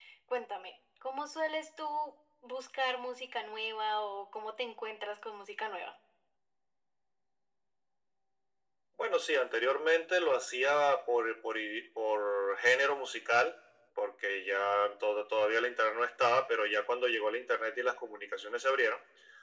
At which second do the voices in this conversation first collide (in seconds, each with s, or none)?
none